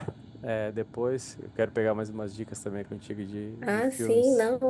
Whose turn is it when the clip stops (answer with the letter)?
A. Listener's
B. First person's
A